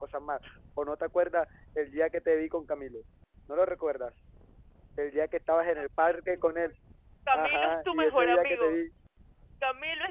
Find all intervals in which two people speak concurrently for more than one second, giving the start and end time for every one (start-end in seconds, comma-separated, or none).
7.3-8.8